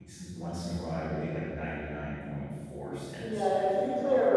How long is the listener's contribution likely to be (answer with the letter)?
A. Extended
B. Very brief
A